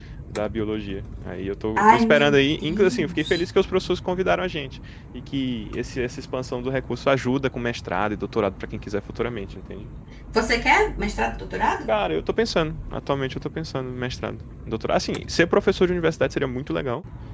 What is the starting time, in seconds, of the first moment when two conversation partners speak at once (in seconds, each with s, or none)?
1.8 s